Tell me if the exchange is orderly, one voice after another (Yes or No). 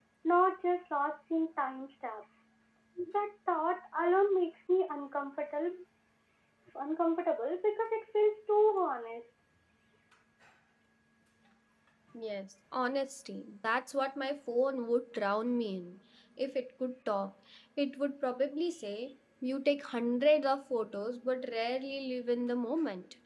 Yes